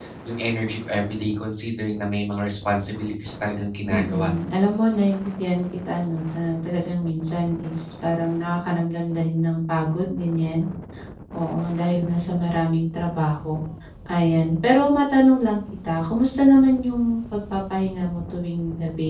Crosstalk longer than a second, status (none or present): none